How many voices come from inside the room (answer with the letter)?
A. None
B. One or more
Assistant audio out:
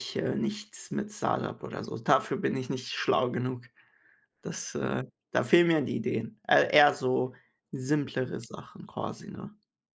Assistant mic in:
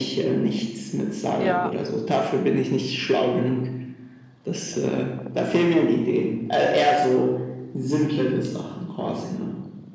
B